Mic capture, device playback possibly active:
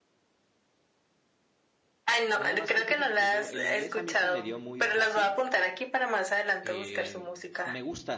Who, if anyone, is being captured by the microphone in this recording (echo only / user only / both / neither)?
both